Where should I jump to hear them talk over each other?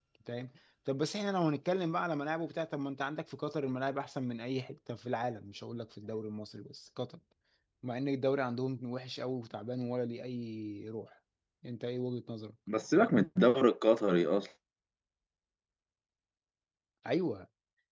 none

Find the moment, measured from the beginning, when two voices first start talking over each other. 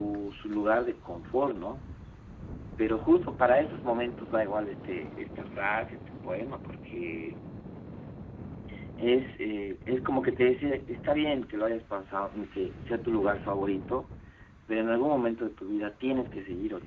none

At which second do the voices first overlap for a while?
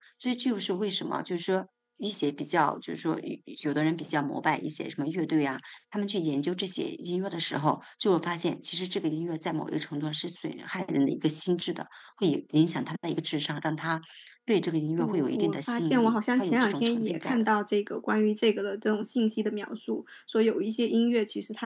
15.0 s

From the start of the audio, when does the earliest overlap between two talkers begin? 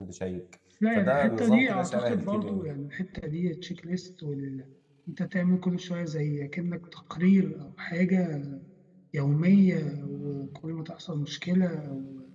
0.9 s

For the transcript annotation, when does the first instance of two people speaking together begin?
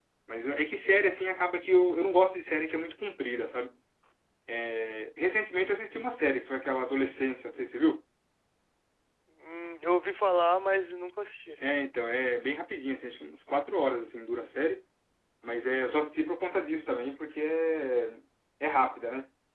none

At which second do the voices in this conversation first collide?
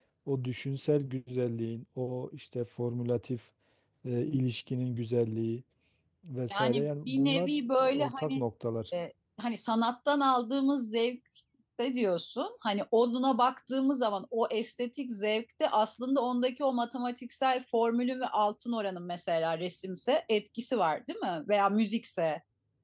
6.5 s

